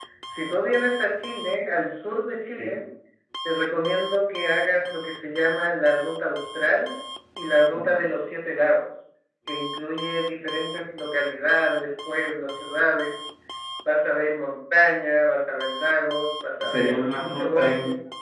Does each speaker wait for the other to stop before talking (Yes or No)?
No